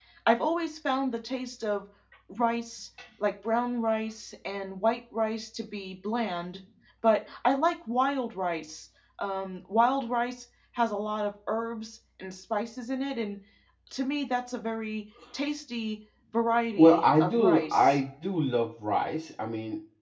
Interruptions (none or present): present